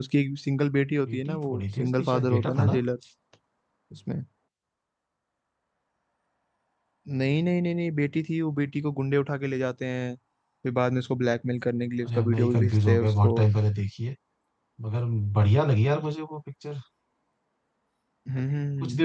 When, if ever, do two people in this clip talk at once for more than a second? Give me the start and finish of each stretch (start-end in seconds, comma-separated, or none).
1.1-2.8, 12.1-13.3